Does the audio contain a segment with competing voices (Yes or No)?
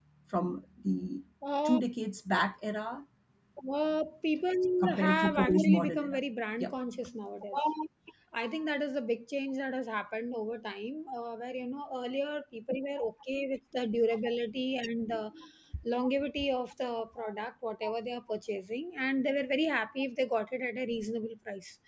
Yes